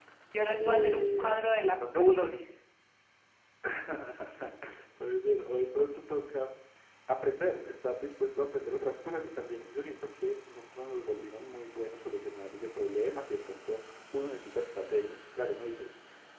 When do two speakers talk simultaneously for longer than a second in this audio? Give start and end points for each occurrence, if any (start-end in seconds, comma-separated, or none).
0.7-2.2